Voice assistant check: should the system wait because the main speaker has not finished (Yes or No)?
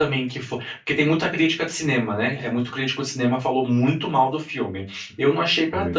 Yes